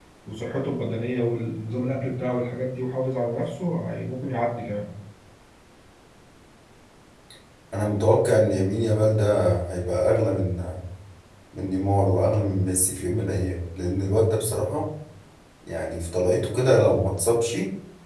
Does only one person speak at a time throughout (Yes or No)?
Yes